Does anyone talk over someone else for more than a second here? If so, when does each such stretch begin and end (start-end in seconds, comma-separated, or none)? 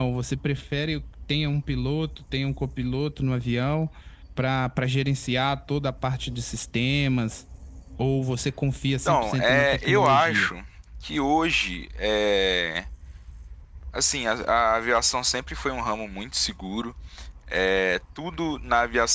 9.1-10.5